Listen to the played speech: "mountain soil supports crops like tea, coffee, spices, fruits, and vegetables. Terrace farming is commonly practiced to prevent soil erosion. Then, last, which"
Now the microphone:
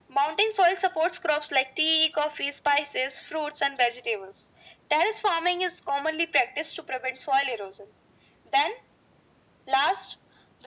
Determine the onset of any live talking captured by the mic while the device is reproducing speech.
none

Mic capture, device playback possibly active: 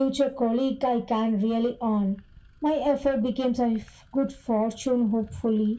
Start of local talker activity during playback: none

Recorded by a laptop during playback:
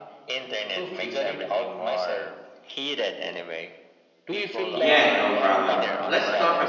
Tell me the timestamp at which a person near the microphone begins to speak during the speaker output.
5 s

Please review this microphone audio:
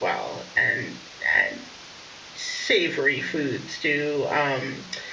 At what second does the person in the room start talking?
none

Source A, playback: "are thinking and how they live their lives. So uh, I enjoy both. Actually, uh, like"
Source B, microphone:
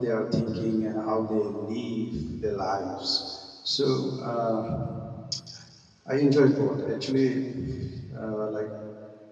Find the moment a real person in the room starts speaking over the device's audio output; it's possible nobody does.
none

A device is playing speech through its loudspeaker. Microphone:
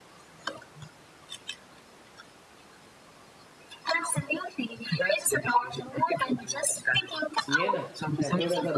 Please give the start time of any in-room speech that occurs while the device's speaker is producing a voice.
7 s

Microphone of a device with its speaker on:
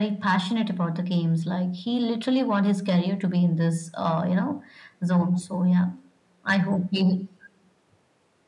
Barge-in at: none

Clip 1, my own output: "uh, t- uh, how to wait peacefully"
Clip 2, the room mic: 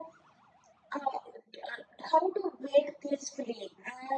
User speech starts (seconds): none

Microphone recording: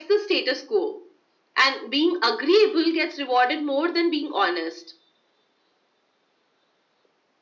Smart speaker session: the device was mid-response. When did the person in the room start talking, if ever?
none

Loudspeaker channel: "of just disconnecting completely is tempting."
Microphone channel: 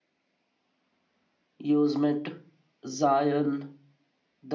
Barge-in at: 2 s

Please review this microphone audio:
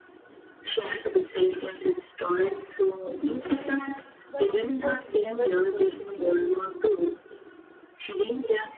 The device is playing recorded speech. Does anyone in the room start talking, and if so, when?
4 s

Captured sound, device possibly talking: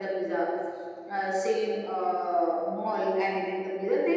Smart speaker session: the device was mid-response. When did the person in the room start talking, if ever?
none

